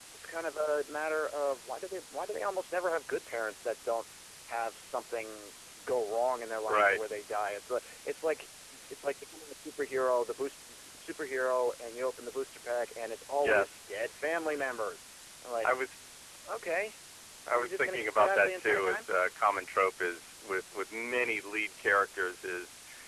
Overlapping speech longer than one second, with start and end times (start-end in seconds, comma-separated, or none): 17.5-19.1